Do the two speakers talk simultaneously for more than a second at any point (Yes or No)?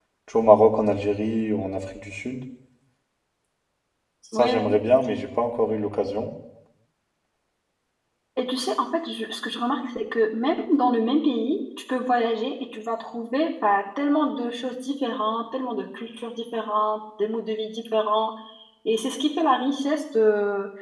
No